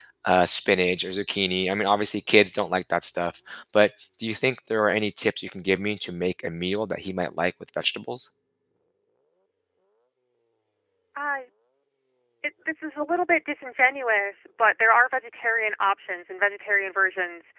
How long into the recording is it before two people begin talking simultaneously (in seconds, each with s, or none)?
none